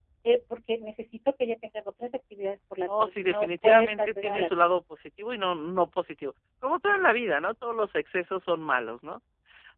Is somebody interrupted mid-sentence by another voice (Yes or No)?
Yes